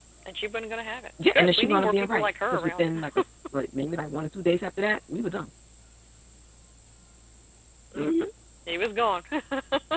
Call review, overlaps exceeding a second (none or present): present